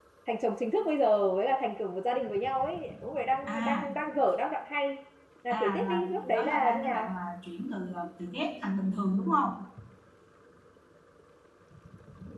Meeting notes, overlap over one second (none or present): present